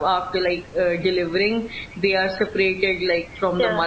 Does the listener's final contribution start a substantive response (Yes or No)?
No